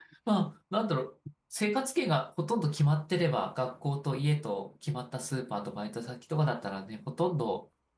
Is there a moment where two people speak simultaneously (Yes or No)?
No